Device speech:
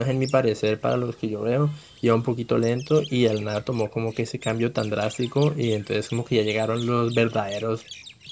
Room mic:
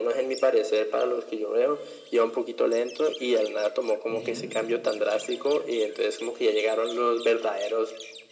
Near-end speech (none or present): present